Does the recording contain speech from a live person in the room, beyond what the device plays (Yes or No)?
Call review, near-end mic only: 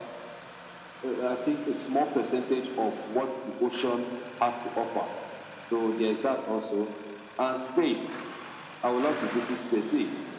No